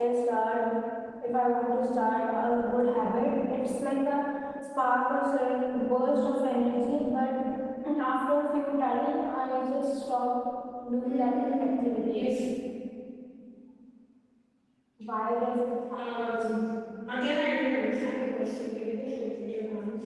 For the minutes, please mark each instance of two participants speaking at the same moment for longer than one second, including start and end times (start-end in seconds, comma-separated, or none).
11.0-12.3